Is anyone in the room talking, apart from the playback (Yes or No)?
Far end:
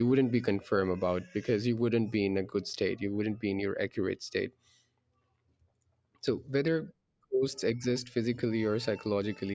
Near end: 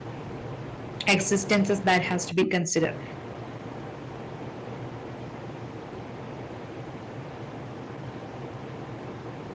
Yes